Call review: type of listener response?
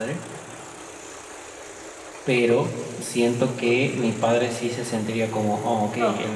taking over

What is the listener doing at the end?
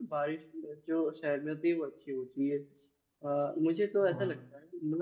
listening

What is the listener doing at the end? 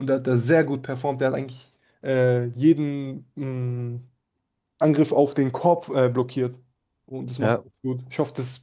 listening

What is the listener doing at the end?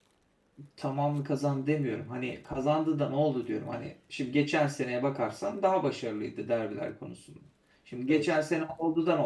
listening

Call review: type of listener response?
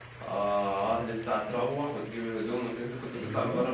taking over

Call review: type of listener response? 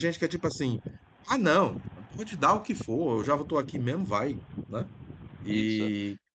listening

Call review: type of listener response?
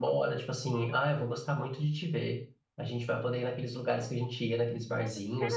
taking over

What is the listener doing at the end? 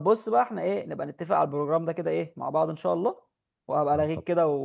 listening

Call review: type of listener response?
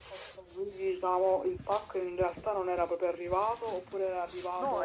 taking over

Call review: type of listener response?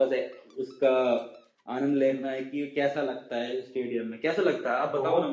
taking over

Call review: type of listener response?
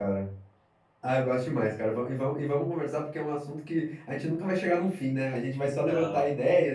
listening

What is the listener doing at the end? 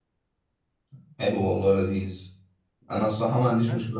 listening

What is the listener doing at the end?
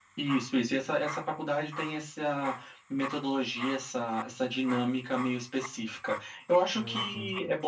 listening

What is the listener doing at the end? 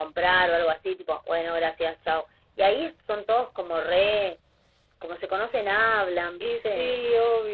taking over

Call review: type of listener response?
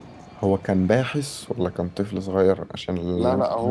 taking over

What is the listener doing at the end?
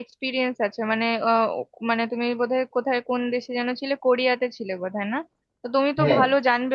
listening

